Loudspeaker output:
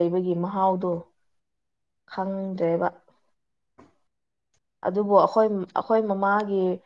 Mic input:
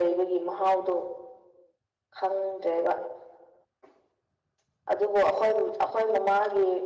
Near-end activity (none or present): none